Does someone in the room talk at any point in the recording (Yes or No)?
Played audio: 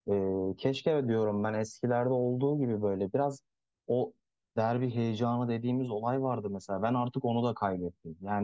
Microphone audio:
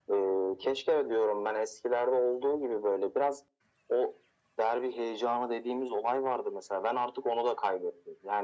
No